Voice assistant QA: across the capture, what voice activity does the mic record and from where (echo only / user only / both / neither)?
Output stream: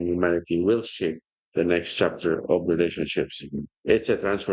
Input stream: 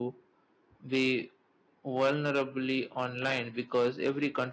user only